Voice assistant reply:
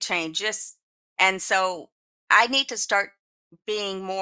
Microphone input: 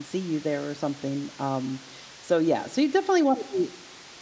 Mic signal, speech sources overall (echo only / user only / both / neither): user only